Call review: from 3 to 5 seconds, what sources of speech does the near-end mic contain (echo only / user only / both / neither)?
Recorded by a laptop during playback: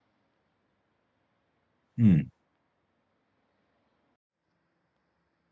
neither